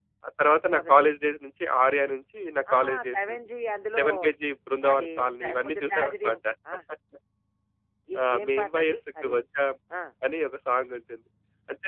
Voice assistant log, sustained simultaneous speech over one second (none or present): present